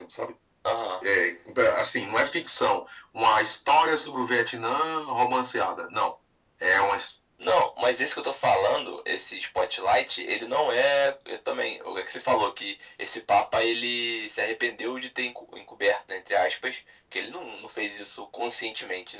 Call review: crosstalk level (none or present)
none